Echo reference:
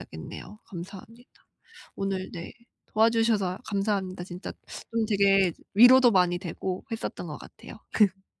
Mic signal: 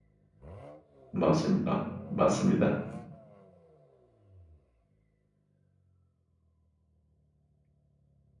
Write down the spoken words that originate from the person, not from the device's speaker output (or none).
맞습니다, 맞습니다.